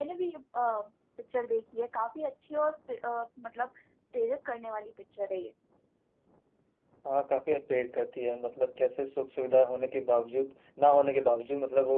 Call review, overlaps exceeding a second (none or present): none